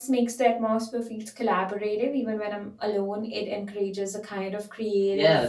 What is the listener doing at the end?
taking over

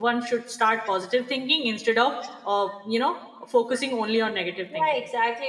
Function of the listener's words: taking over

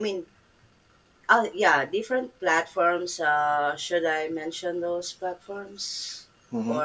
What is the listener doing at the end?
taking over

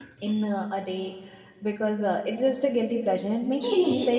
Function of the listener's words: listening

